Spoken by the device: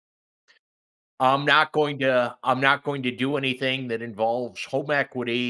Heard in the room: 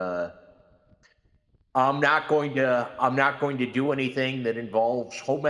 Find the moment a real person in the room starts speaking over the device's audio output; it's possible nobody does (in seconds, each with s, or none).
none